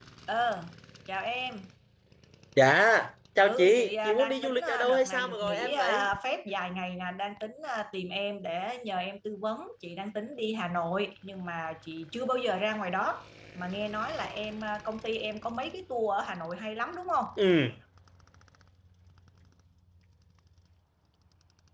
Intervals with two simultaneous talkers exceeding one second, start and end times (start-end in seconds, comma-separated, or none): 3.4-6.1